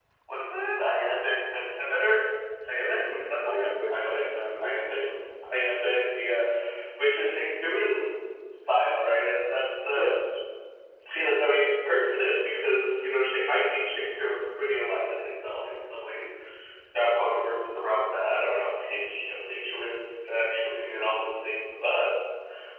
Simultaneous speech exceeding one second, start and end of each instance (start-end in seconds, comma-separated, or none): 2.9-5.0